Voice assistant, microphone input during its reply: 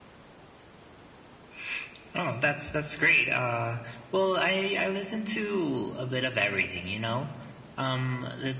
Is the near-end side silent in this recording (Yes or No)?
Yes